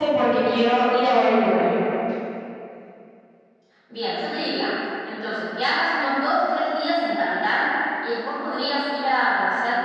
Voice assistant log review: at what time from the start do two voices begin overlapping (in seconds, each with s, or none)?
none